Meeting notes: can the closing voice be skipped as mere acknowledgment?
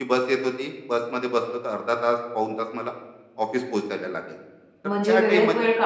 No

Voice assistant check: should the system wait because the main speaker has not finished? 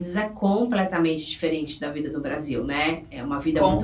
Yes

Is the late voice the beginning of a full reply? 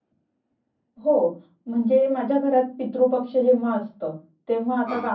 No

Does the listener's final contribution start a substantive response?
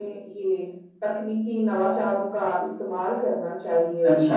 Yes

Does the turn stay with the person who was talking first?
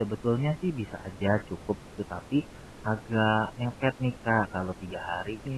Yes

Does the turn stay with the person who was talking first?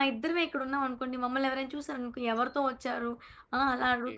Yes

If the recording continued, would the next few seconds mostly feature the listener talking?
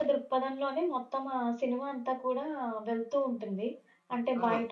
No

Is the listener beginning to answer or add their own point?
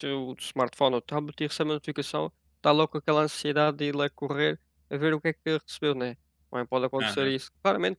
No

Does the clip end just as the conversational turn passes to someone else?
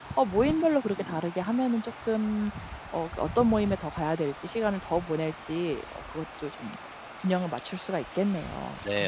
Yes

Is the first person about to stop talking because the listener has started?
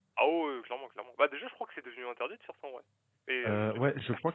Yes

